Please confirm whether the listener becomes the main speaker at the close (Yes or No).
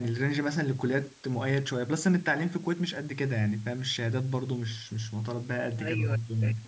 Yes